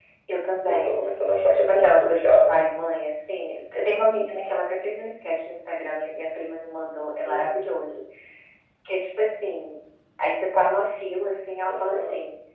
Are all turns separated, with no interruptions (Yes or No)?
No